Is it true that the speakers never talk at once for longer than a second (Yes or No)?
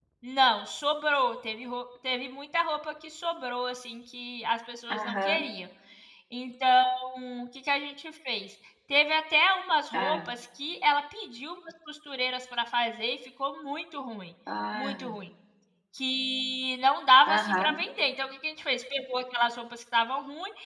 Yes